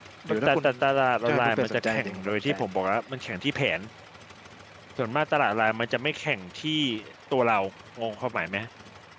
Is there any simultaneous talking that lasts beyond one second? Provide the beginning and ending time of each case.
1.2-2.5

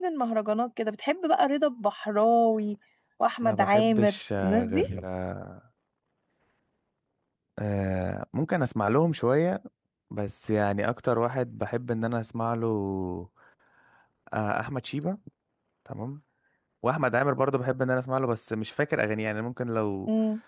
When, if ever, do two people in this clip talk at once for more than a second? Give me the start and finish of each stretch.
3.4-4.8

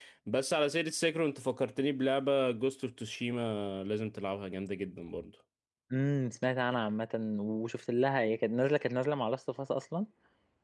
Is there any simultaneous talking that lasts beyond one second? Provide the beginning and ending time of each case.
none

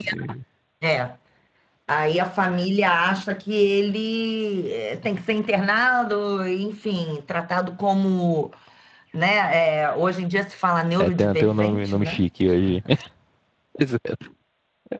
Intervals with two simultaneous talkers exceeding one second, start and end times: 11.0-12.2

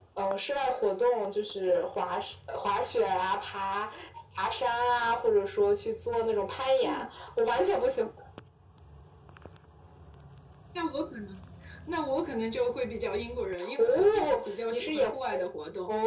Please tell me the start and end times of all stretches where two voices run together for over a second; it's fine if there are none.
13.8-15.0

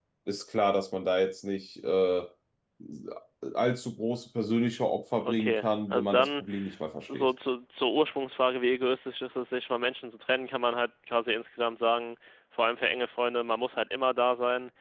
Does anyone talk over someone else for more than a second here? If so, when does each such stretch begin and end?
5.2-6.4

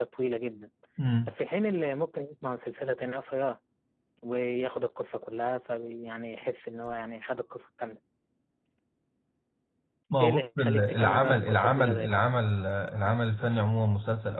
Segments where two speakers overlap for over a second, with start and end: 10.2-12.3

